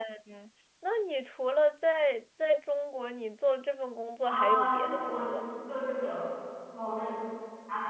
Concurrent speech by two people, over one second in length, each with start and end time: 4.2-5.6

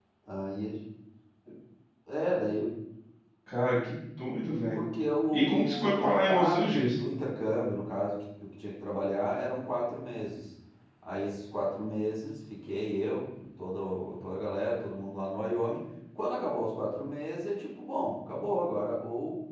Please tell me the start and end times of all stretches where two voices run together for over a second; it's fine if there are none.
5.3-7.0

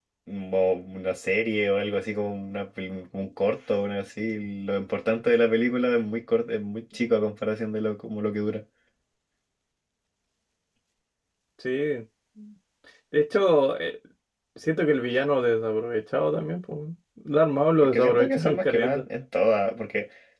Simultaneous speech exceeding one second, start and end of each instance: 17.8-19.0

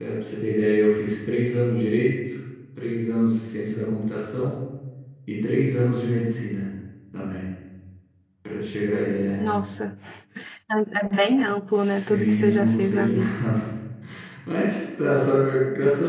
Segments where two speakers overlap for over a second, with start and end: 11.7-13.4

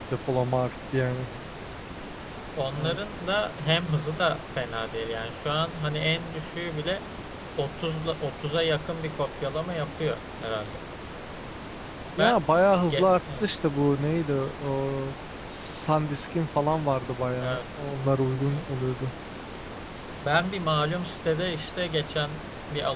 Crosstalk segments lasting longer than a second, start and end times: none

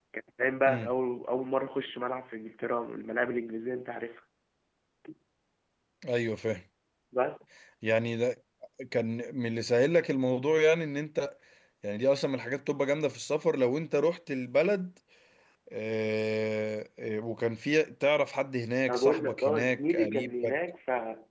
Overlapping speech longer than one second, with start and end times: 18.9-20.6

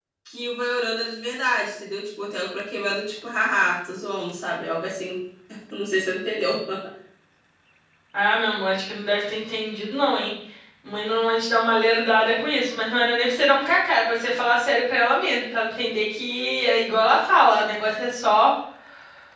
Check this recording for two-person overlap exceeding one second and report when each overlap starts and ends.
none

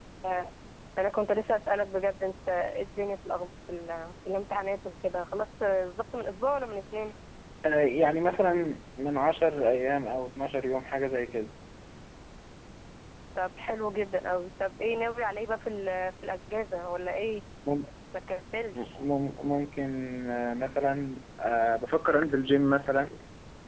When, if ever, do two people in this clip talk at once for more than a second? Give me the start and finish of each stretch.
none

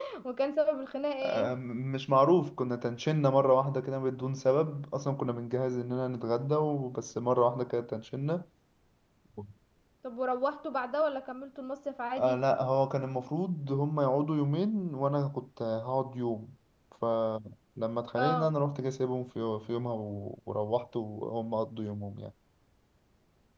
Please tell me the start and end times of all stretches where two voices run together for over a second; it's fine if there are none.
none

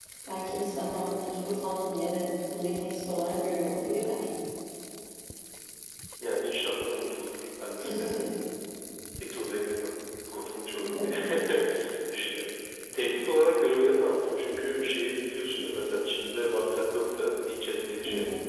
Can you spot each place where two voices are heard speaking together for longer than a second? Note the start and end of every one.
none

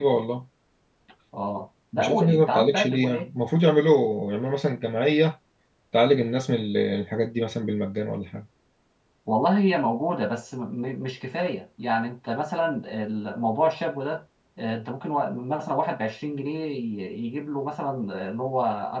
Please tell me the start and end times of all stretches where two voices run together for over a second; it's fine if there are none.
2.0-3.3

